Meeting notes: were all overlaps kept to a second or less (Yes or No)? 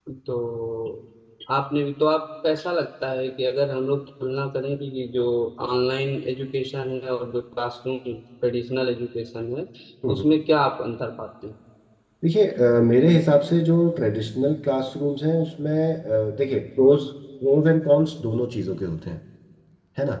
Yes